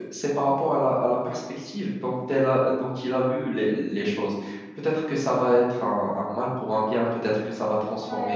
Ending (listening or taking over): listening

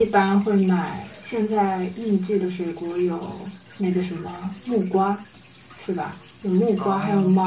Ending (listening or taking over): listening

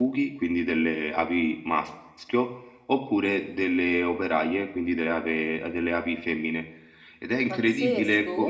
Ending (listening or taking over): taking over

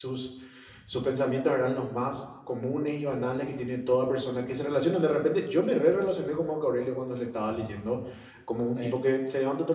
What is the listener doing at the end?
listening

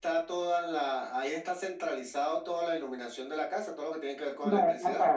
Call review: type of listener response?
taking over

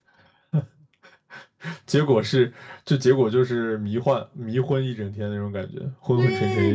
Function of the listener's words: taking over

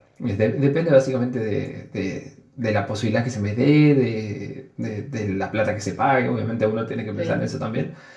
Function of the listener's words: listening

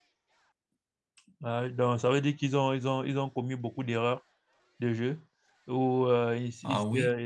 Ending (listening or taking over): listening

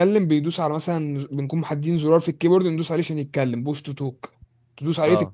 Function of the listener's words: listening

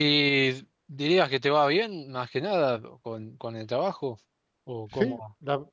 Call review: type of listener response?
taking over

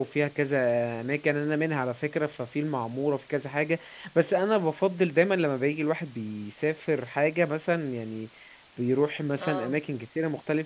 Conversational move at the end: listening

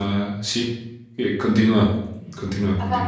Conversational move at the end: taking over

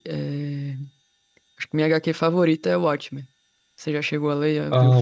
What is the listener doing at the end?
taking over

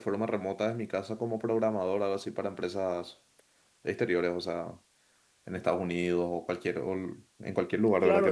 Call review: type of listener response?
taking over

